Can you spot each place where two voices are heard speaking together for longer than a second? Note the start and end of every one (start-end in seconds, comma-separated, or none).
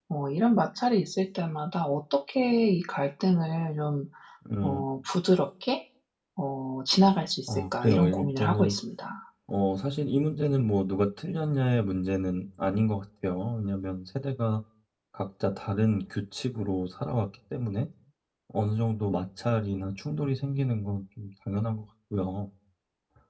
7.5-8.7